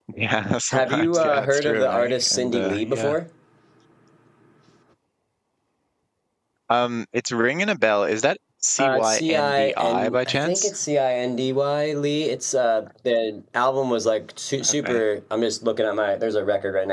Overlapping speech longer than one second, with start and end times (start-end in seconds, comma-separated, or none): 0.7-3.2, 8.8-10.7